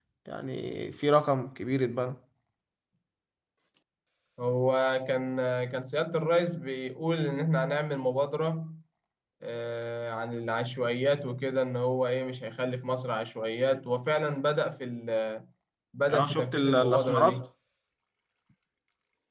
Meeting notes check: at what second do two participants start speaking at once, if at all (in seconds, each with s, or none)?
16.1 s